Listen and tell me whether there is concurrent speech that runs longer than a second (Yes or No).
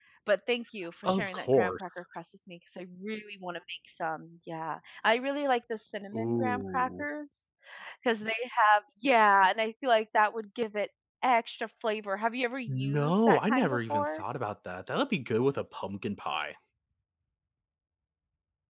Yes